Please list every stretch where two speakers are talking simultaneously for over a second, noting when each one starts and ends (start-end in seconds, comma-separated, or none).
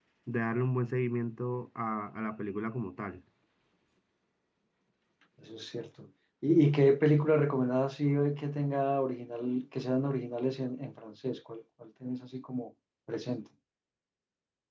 none